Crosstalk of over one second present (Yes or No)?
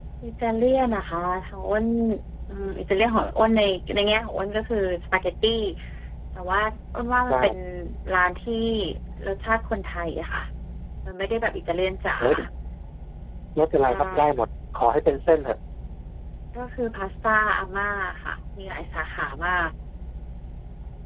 No